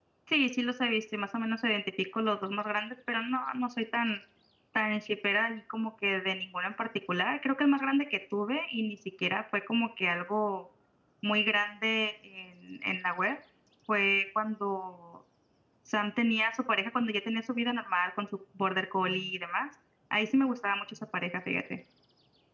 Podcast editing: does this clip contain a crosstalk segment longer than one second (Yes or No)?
No